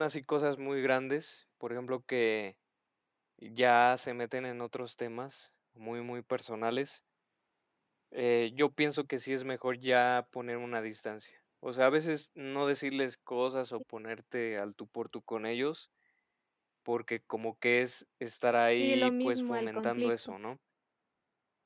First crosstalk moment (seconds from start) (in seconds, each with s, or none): 18.8 s